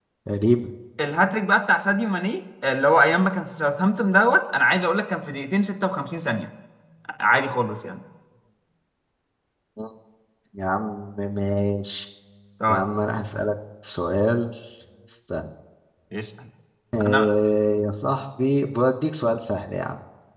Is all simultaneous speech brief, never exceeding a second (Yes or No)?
Yes